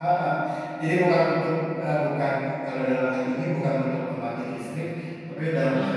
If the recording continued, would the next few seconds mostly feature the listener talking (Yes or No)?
No